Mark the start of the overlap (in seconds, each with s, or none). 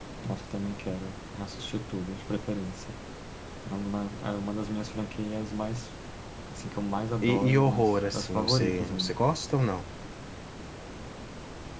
7.2 s